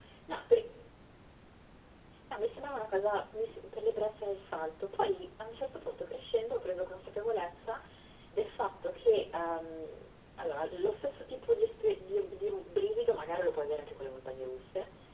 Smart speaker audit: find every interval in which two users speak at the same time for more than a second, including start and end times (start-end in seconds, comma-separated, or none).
none